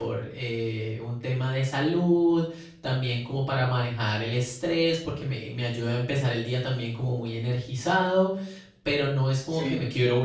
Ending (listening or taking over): listening